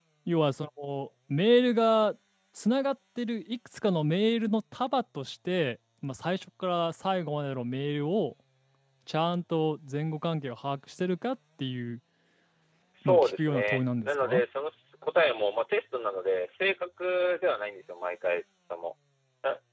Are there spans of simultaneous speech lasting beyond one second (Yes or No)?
Yes